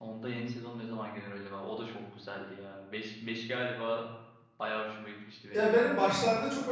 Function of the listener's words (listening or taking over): taking over